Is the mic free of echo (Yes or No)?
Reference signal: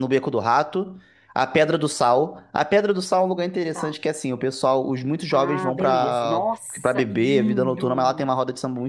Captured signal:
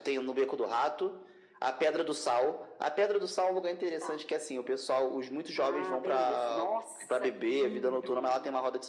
No